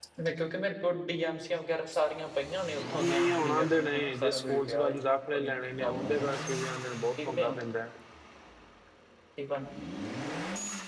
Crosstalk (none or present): present